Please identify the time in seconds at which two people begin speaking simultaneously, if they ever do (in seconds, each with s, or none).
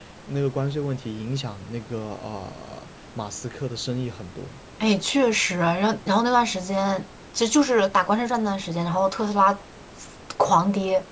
none